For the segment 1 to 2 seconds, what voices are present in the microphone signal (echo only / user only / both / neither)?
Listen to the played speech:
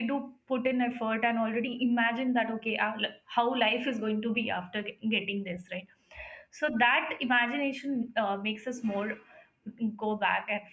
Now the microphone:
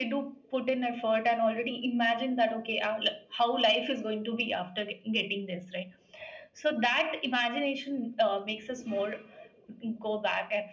echo only